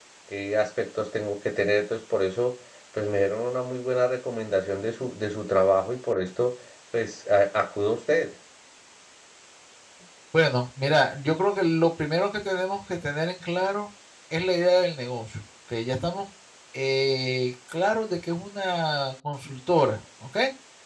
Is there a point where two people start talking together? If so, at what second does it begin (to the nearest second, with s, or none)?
none